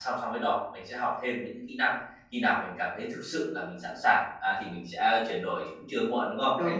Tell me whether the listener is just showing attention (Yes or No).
No